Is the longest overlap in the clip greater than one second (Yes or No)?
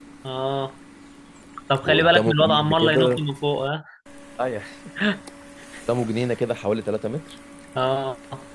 Yes